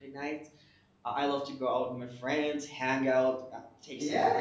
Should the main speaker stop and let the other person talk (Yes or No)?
Yes